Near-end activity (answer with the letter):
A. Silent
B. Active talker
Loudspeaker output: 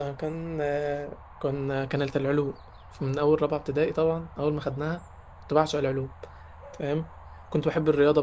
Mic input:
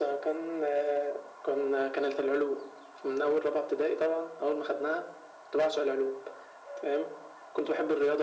A